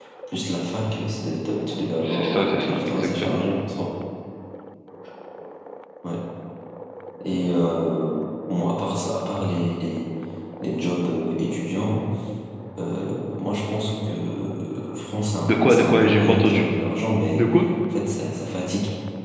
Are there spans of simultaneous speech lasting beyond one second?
Yes, from 2.2 s

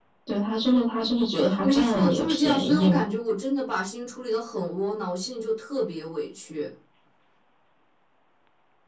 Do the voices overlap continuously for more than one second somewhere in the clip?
Yes, from 1.5 s

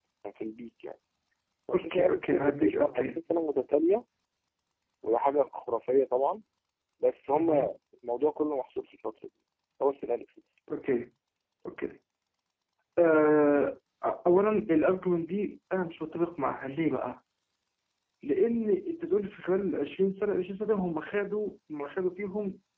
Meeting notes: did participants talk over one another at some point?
Yes, from 1.7 s

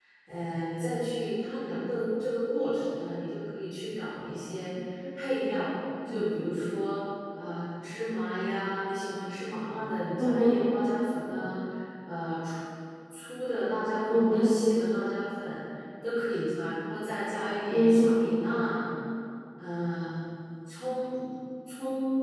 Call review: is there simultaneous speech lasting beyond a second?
No

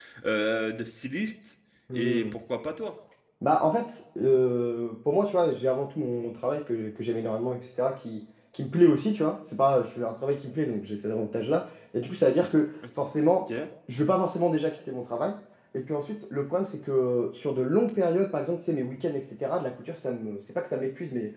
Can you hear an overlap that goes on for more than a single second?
No

